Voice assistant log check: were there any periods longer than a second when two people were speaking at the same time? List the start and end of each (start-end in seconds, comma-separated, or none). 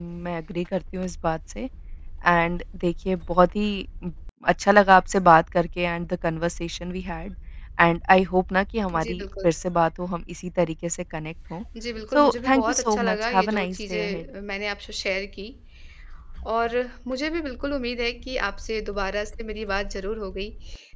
12.1-14.2